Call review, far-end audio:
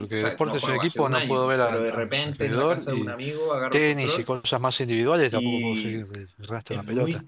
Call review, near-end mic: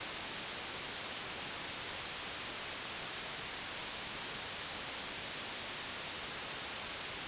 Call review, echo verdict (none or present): none